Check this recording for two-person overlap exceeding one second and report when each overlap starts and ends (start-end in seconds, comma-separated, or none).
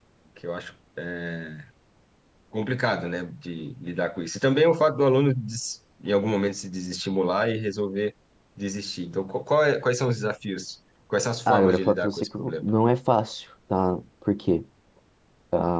11.5-12.7